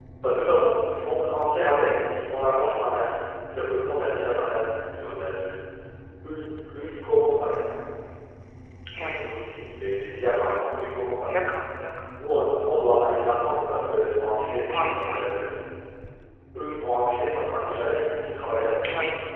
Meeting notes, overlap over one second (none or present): none